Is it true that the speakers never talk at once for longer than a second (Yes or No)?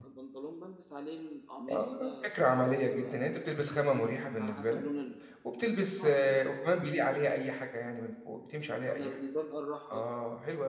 No